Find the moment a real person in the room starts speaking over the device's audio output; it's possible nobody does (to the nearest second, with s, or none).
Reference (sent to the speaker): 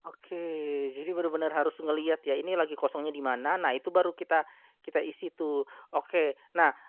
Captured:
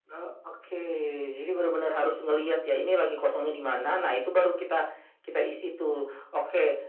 none